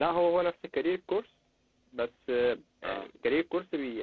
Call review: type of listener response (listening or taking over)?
listening